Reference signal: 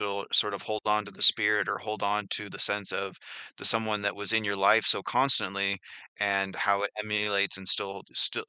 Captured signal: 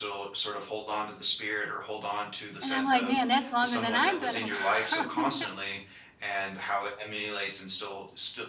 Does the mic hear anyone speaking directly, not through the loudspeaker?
Yes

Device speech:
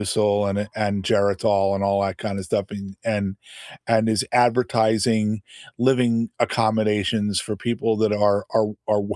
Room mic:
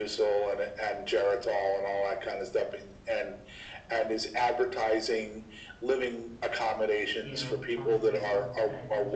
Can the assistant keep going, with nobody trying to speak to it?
No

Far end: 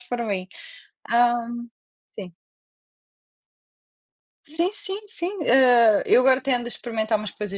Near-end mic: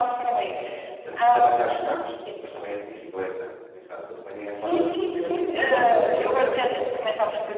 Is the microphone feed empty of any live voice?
No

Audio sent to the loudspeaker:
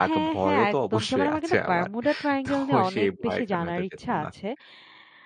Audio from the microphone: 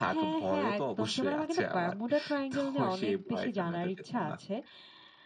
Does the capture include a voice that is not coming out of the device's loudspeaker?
No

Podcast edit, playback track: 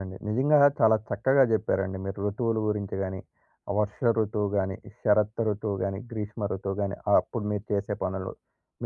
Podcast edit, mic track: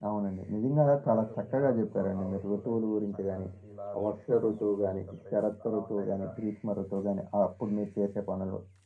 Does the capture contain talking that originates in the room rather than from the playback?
Yes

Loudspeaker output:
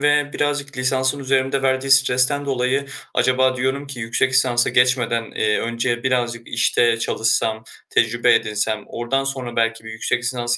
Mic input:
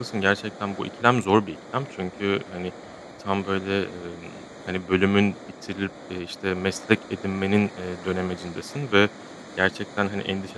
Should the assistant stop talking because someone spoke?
Yes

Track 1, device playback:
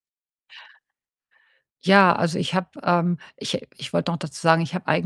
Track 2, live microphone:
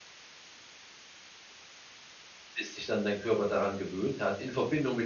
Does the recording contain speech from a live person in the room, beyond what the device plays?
Yes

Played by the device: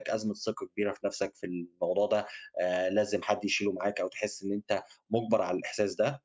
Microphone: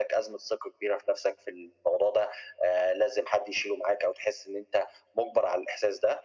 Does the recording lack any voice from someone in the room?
Yes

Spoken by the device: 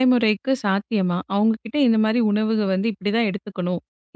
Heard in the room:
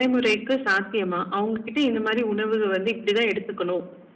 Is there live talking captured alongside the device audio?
No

